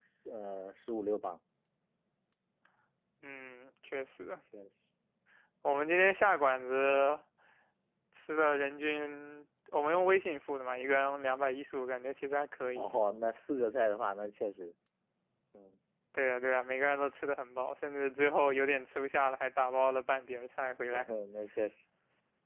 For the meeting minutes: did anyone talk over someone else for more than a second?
No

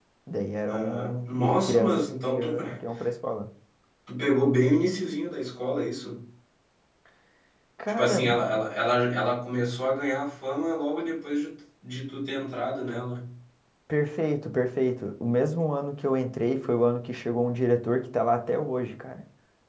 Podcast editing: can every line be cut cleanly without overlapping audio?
No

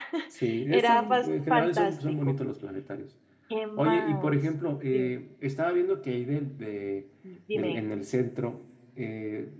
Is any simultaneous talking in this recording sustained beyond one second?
Yes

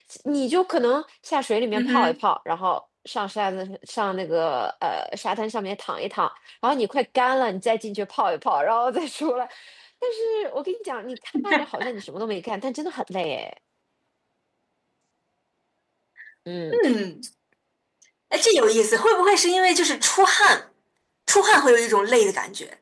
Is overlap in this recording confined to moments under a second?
Yes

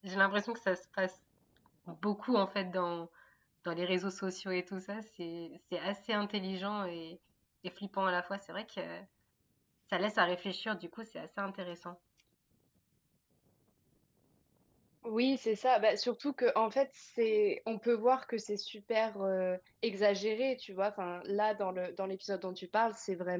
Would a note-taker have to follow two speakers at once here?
No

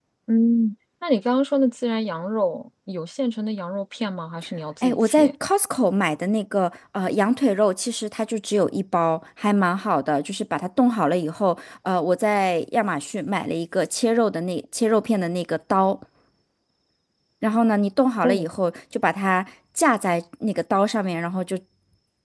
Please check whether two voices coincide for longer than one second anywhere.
No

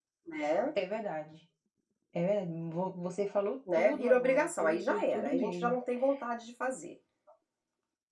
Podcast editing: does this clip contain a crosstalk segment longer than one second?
Yes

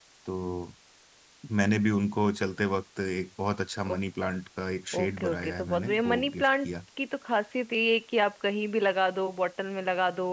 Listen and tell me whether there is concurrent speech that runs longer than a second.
Yes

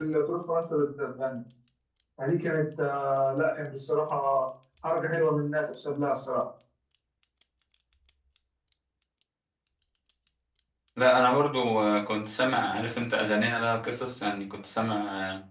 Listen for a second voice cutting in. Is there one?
No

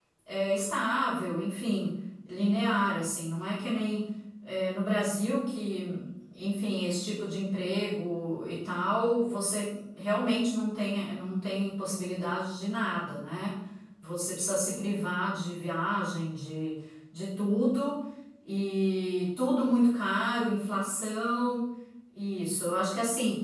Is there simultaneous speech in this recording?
No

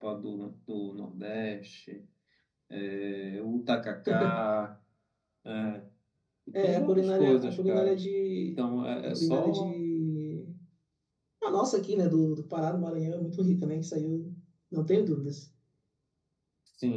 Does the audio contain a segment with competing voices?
Yes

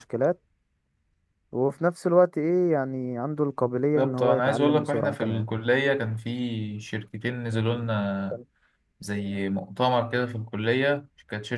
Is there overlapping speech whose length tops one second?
Yes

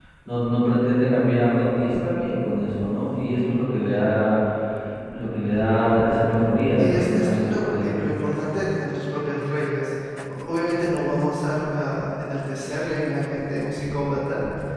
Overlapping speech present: Yes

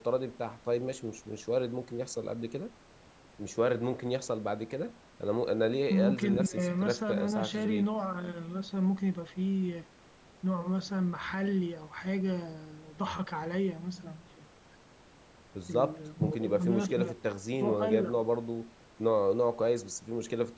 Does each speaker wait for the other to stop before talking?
No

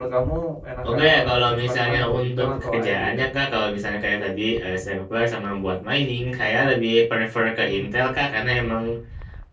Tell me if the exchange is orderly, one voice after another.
No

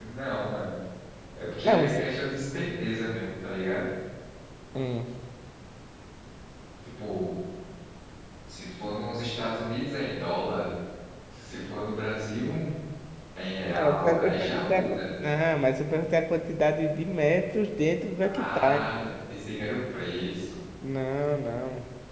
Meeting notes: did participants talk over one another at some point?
Yes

